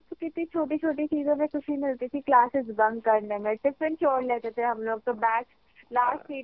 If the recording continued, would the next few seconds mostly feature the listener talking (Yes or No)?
No